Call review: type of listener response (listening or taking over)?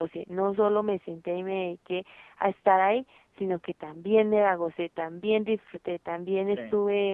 listening